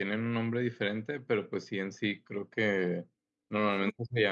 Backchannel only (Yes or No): Yes